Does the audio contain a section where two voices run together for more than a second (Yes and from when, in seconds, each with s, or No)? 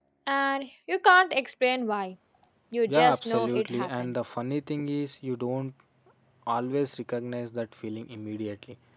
Yes, from 2.9 s